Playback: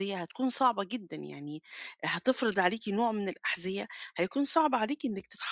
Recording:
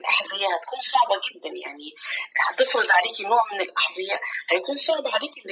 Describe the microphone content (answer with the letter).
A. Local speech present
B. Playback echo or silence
B